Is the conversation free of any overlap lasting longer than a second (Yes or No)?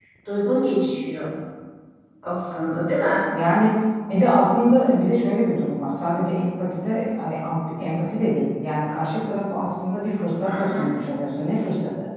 Yes